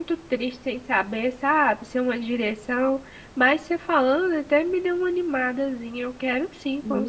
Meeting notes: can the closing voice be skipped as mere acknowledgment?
No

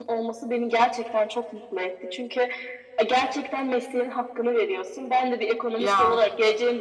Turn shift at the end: No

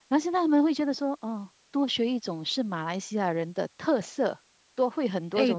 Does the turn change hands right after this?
Yes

